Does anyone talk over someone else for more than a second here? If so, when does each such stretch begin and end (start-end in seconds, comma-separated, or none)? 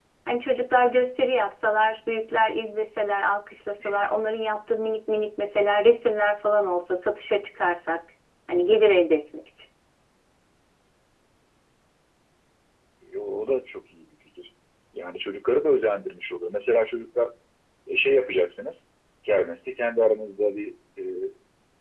none